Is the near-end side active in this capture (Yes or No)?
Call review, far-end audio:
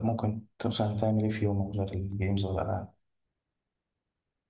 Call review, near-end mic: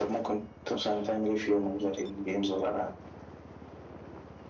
No